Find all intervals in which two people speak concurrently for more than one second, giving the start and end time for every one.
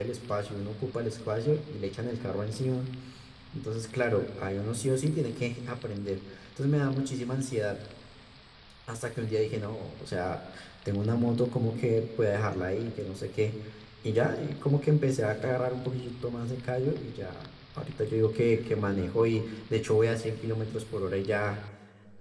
none

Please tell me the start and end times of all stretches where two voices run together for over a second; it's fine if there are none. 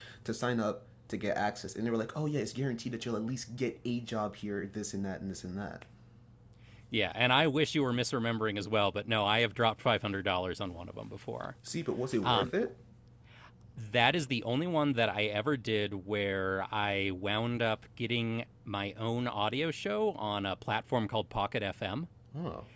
none

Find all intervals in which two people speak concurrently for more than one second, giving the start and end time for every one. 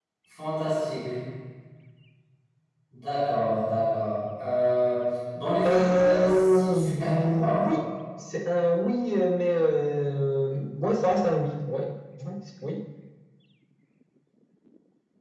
5.7-7.6

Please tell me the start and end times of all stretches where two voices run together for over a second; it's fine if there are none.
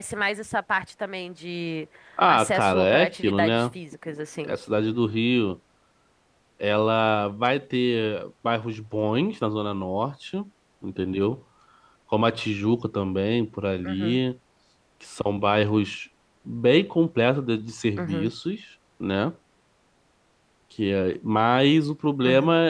2.3-3.7

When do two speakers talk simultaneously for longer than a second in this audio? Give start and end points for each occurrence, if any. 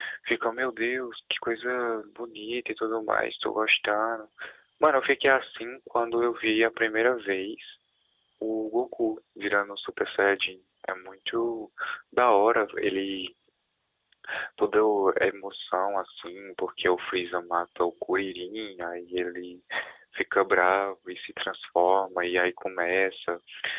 none

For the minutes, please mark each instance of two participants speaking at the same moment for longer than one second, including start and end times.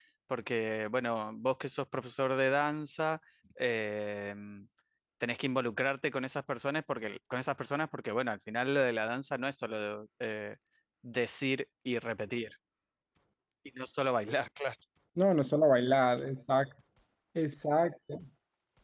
none

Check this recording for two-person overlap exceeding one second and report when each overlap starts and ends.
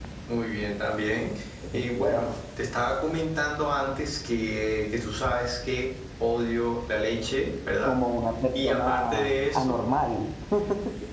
8.6-9.8

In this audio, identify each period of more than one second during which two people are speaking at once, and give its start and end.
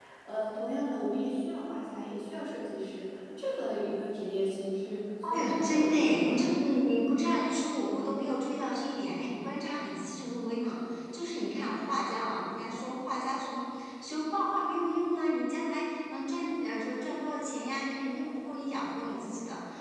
5.2-6.5

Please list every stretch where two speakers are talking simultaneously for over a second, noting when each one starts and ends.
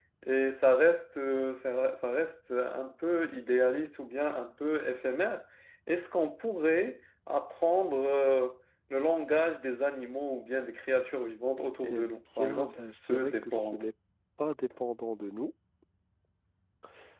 11.8-13.8

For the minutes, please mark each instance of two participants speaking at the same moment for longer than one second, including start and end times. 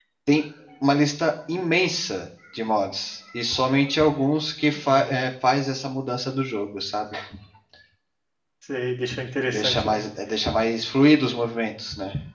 none

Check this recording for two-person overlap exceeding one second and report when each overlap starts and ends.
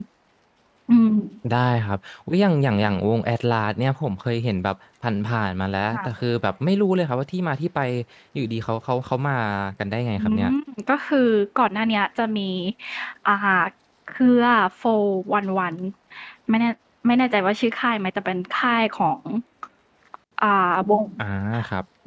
none

